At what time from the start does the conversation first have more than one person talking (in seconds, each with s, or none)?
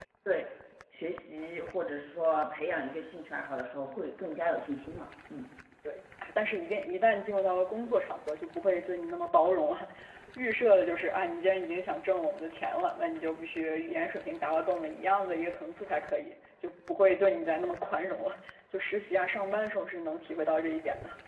none